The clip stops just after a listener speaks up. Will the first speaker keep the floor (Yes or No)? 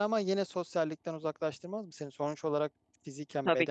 No